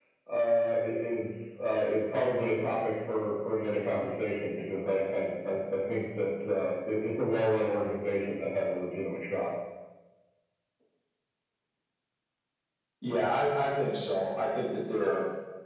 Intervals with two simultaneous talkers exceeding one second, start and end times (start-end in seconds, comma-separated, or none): none